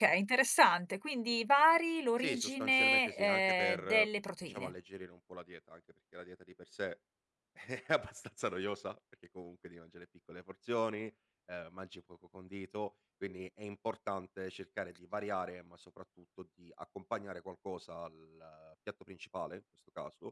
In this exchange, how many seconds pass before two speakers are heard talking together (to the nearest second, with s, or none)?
2 s